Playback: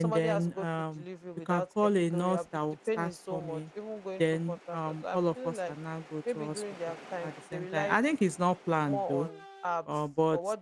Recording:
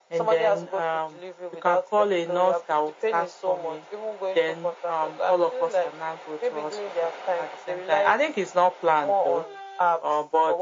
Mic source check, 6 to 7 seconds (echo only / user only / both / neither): echo only